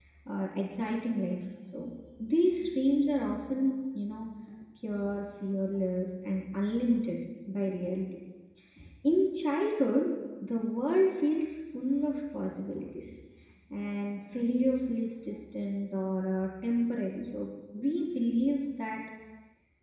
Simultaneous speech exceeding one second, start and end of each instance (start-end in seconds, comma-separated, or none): none